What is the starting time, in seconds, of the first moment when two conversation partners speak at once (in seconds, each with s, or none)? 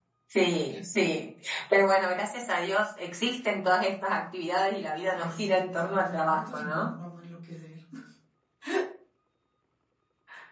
5.1 s